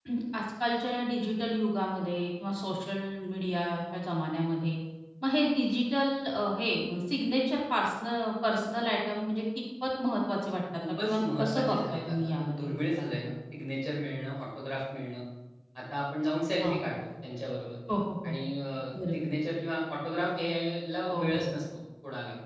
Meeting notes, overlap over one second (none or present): present